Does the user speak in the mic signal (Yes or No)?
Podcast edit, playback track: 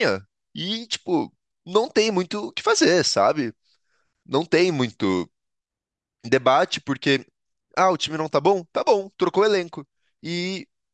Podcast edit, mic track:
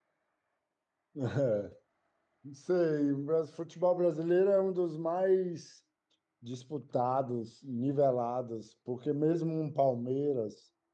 Yes